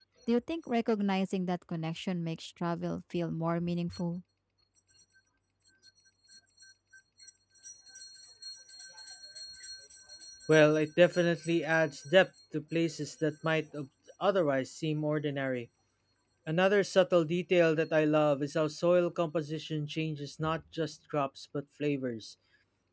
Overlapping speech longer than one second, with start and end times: none

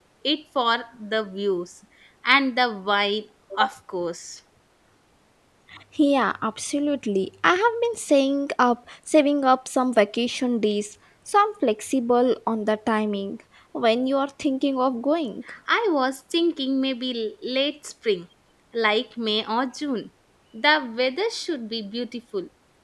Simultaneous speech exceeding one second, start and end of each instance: none

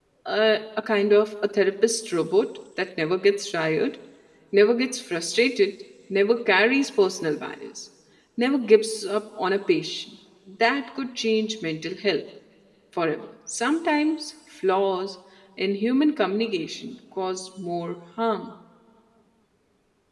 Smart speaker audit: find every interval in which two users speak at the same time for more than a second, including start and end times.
none

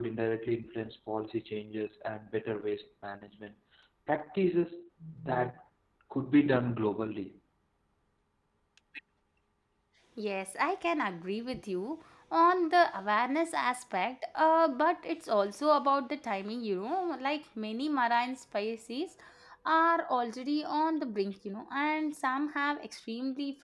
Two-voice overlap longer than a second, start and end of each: none

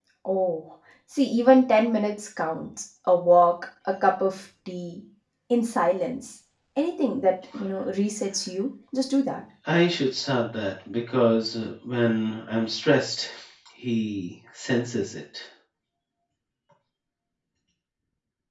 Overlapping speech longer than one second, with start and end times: none

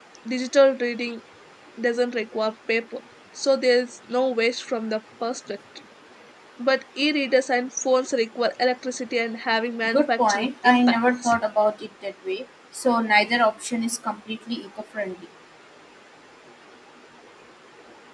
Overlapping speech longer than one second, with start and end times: 9.9-11.3

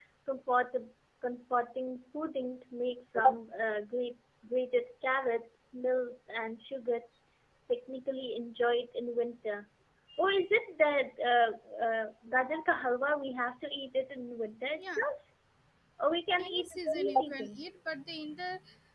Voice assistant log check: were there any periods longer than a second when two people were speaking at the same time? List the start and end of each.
16.4-17.6

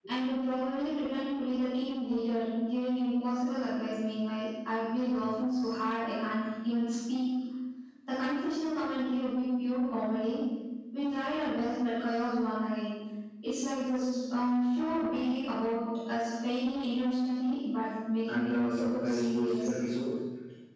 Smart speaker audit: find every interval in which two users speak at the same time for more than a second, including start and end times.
18.3-19.7

